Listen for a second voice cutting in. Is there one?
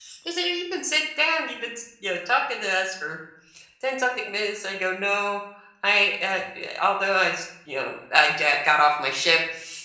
No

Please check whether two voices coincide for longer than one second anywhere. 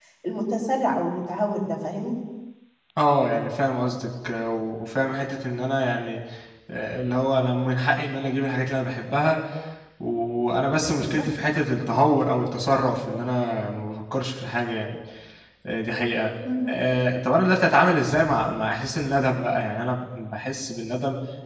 No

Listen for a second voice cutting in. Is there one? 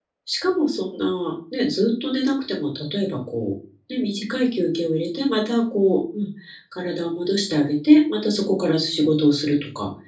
No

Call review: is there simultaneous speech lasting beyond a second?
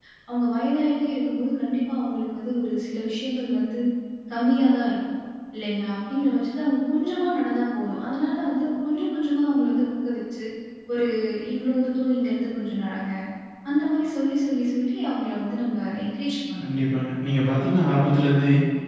No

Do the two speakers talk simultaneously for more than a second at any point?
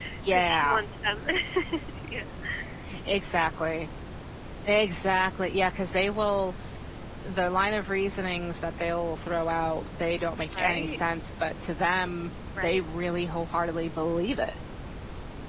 No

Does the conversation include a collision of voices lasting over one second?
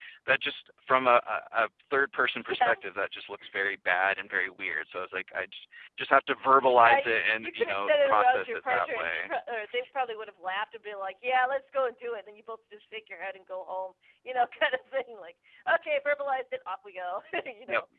Yes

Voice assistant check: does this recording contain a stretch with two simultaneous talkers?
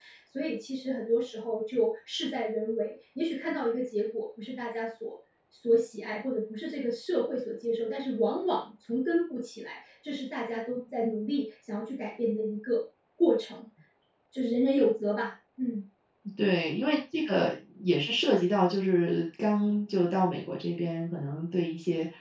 No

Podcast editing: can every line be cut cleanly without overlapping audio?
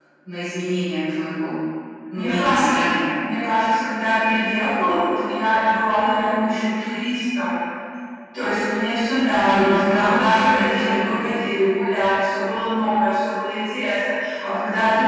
No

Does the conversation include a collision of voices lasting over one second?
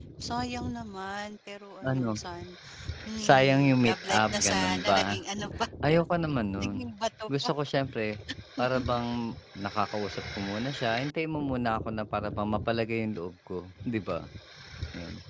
Yes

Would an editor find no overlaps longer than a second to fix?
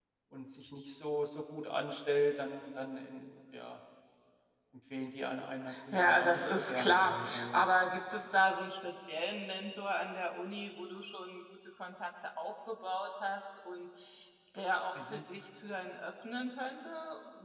No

